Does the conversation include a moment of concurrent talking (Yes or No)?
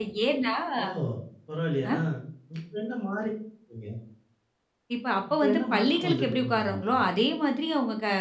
Yes